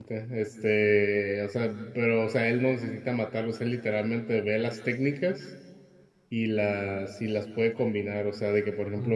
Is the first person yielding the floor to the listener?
No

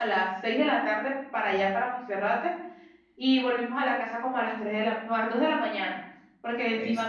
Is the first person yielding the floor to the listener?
No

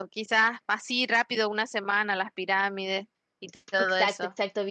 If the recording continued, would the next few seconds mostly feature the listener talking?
Yes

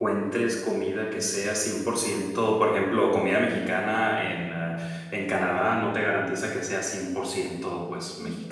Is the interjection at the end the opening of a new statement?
Yes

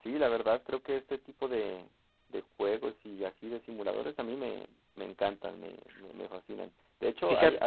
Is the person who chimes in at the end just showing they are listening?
Yes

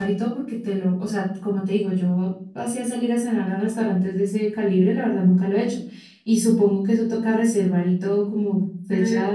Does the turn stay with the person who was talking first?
No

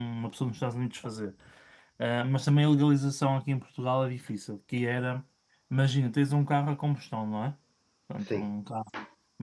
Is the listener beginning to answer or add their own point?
No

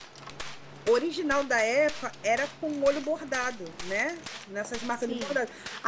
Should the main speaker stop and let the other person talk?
No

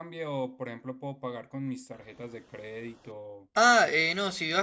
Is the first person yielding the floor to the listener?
Yes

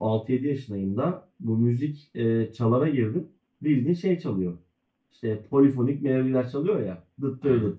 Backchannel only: Yes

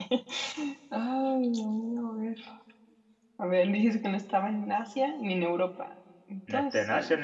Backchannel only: No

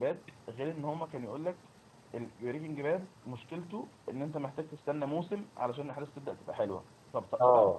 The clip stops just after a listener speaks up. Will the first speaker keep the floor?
Yes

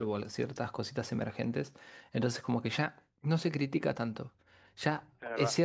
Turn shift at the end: No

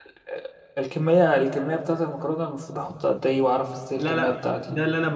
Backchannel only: No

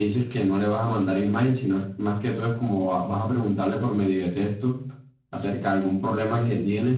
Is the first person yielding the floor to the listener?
No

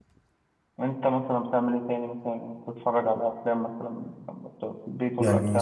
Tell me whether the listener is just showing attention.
No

